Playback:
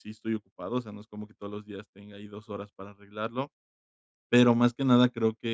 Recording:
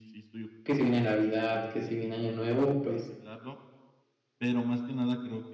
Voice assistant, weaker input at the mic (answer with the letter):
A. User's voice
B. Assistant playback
B